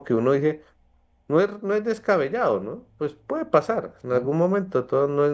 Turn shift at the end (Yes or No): No